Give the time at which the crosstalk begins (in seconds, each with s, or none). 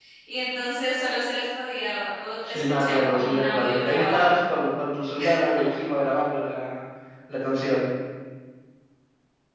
2.4 s